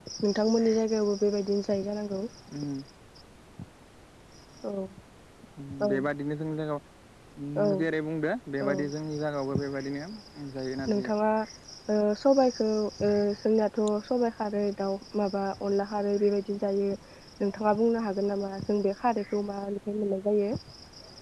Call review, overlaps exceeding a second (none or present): none